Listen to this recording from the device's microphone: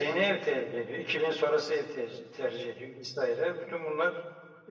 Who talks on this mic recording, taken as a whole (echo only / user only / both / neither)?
echo only